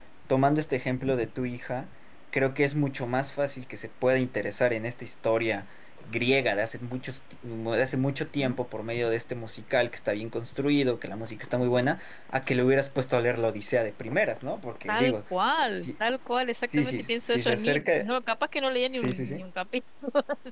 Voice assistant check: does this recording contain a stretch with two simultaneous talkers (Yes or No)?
Yes